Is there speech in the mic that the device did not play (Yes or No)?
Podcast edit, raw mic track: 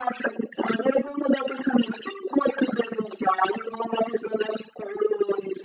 No